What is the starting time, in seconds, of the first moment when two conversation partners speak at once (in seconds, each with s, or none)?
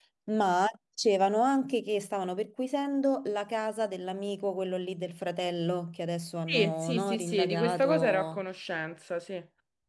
6.5 s